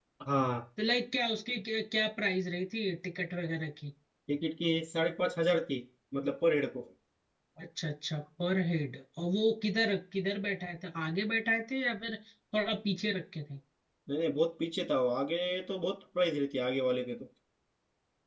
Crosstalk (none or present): none